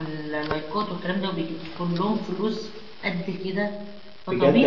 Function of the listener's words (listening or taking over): taking over